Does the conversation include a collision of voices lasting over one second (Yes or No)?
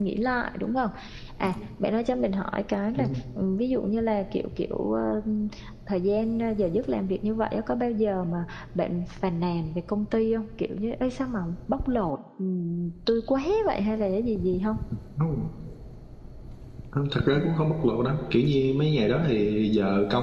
No